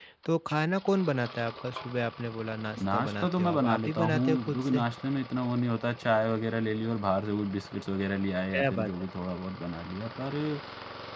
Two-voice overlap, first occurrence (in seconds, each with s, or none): 2.9 s